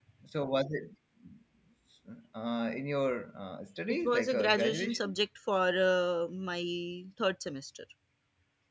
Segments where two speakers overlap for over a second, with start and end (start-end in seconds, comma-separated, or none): 3.9-5.1